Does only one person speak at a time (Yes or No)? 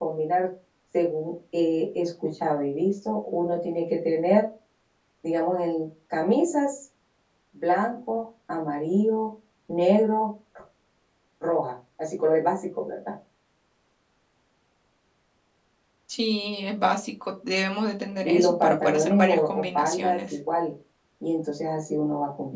No